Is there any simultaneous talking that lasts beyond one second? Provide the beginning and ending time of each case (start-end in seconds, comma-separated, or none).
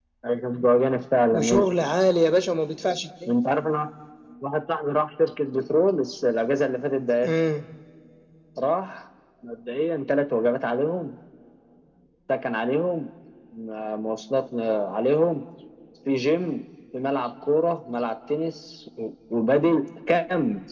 none